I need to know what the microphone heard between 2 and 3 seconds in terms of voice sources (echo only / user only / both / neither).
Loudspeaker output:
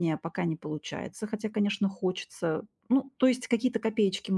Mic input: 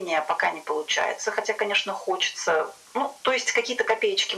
echo only